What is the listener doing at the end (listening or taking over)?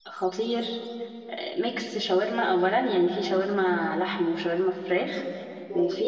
listening